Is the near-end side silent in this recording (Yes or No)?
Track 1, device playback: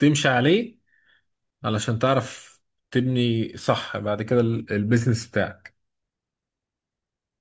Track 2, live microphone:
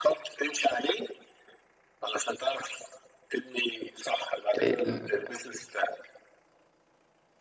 No